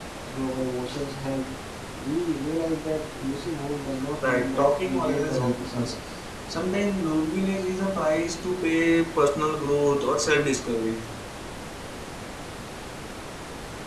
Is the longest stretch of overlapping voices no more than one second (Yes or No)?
No